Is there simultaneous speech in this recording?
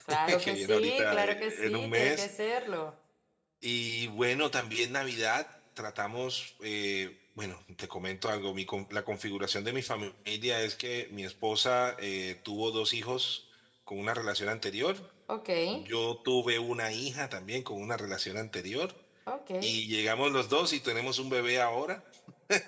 Yes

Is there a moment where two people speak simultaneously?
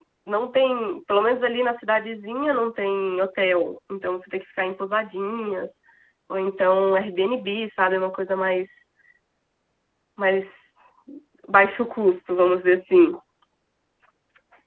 No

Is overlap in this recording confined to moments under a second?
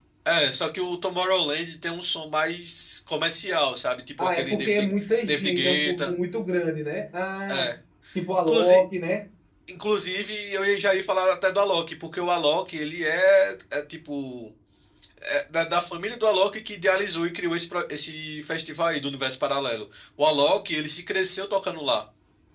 No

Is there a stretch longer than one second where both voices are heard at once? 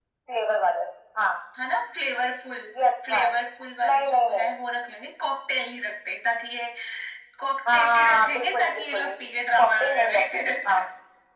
Yes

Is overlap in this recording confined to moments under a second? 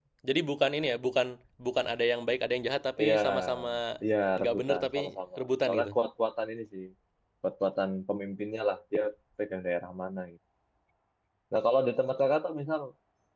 No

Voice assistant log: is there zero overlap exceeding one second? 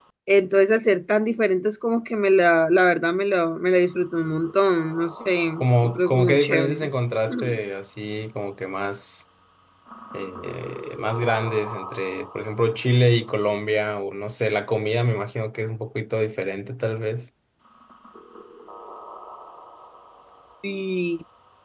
No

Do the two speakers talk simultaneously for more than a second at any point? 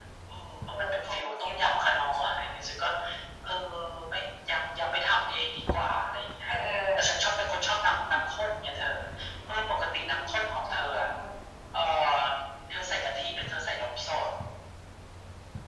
Yes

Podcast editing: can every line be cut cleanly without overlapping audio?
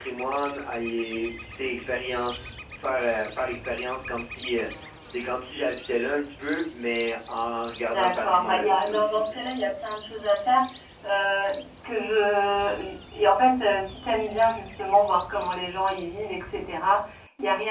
No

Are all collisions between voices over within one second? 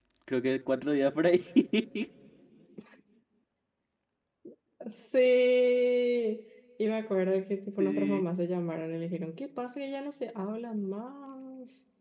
Yes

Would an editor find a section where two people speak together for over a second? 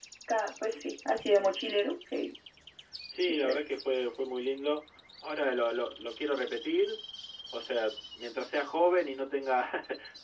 No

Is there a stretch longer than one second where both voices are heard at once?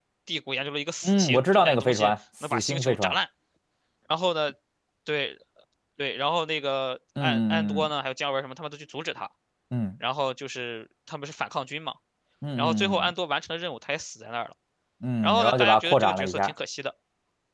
Yes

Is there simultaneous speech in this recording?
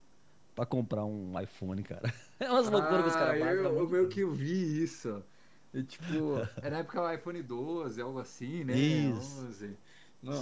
Yes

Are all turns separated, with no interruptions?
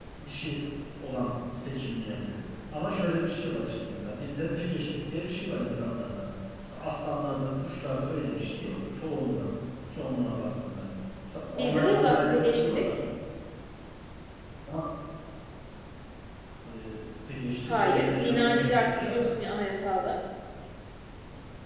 No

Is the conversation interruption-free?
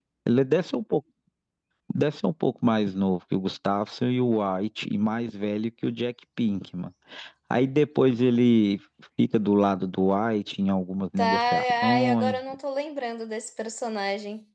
No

